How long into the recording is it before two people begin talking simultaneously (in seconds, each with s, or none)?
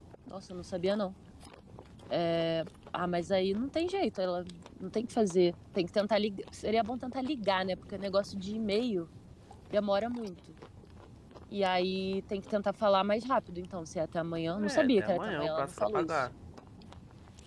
14.6 s